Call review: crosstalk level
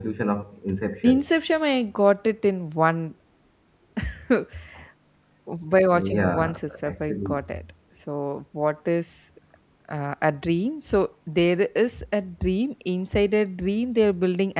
present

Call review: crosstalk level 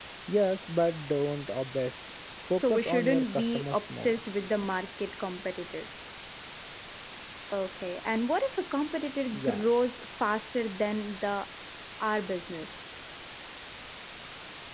present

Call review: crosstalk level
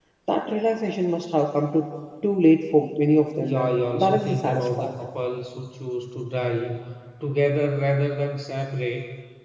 present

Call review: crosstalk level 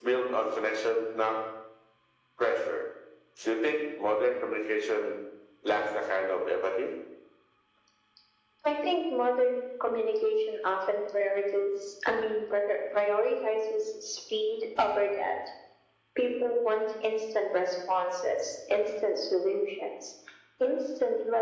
none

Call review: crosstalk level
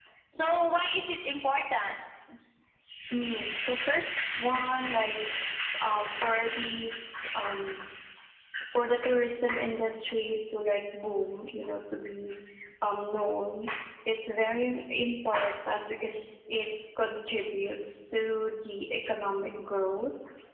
none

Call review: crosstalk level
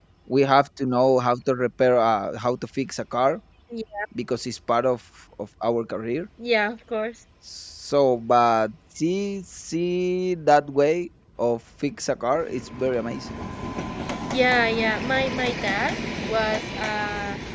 none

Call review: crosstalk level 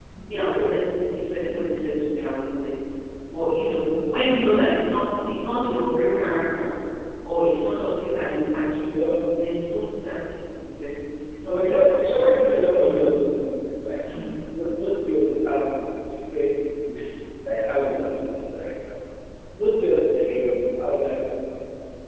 present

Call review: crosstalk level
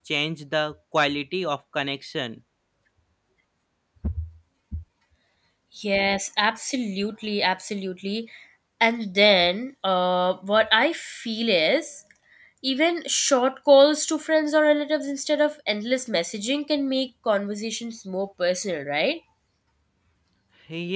none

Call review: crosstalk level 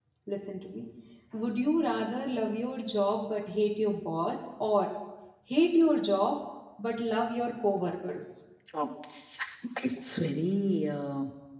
none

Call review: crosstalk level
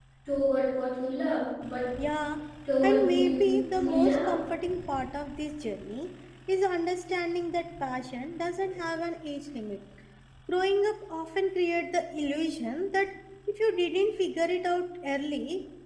present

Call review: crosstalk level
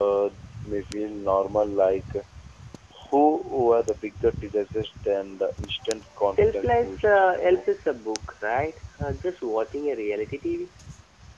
present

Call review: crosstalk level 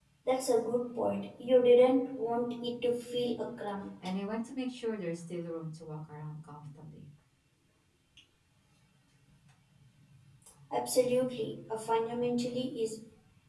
none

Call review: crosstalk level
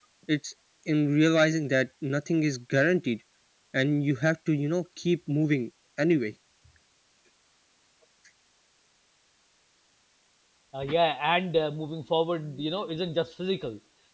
none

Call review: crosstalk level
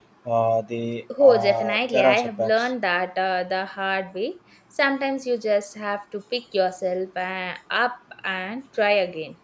present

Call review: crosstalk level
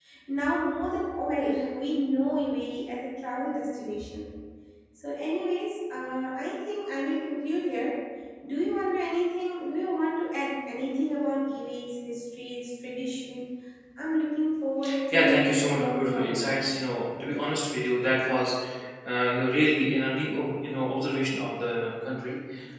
present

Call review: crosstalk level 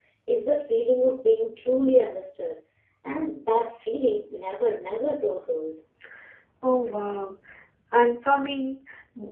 none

